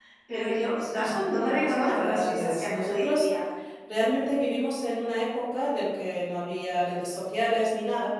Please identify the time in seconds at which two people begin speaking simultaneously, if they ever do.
0.9 s

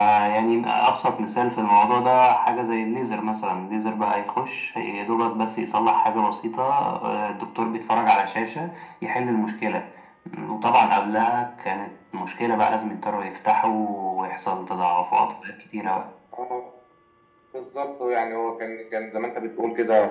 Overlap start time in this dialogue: none

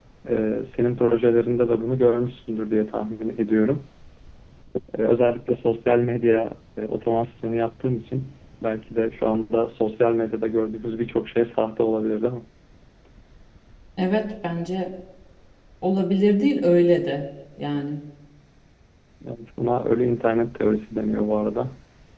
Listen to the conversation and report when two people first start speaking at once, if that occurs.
none

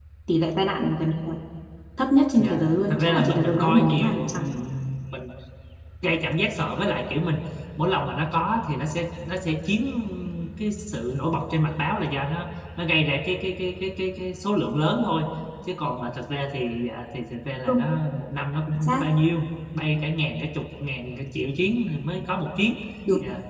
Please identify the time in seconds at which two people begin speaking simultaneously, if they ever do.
2.4 s

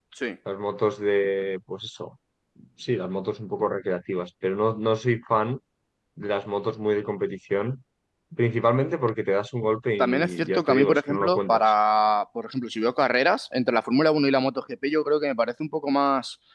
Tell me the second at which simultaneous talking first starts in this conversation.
10.0 s

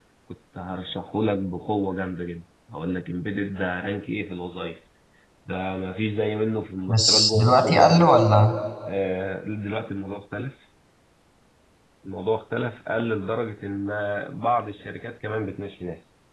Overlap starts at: 6.9 s

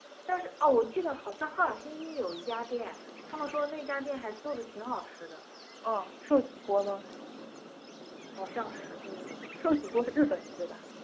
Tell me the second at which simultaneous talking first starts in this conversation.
none

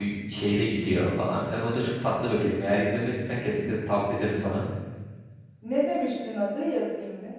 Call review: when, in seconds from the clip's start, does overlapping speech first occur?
none

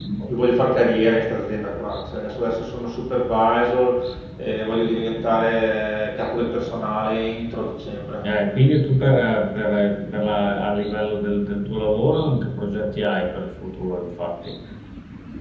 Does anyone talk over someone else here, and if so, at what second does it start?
none

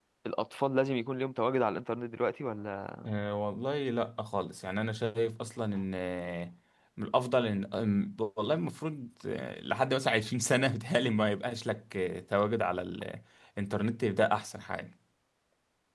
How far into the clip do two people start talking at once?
none

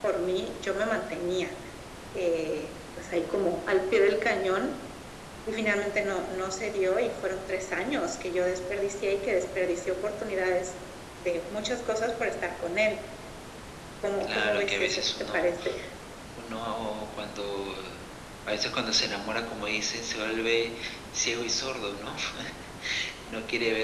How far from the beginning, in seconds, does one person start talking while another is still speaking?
14.2 s

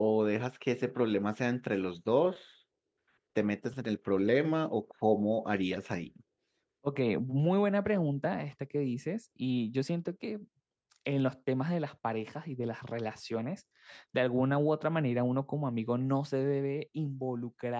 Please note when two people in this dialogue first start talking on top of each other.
none

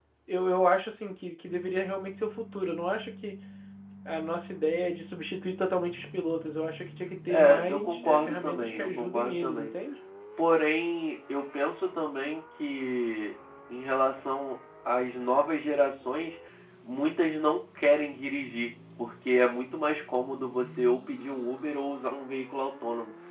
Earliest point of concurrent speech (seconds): 7.3 s

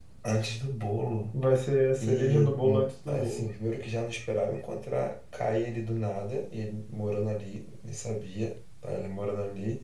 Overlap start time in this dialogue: 2.0 s

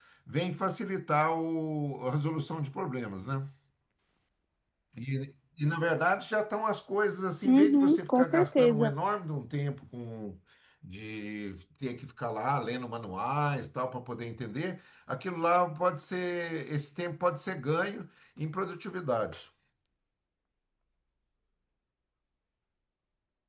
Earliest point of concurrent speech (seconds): 7.4 s

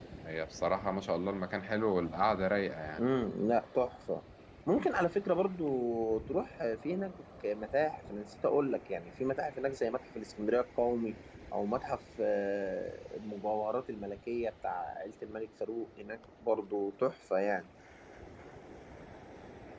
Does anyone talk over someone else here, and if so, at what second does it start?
none

